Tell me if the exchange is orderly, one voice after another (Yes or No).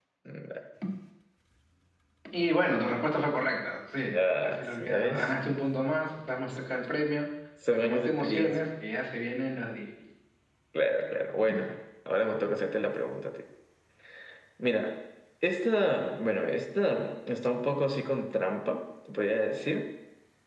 No